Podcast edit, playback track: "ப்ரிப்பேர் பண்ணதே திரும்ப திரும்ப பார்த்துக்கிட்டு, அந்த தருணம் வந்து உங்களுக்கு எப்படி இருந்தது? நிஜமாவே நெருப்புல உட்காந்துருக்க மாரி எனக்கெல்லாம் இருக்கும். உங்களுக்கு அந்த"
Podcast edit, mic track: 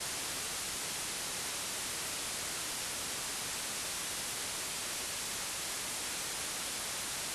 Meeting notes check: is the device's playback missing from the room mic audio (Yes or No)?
Yes